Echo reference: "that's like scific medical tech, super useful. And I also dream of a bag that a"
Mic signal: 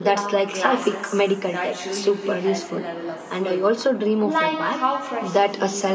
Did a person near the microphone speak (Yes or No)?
Yes